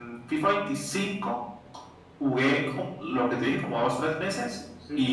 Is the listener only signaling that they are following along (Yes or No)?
Yes